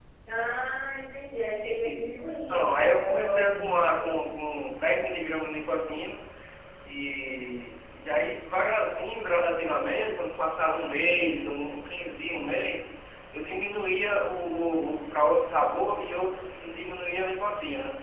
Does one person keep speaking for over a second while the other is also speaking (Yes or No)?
Yes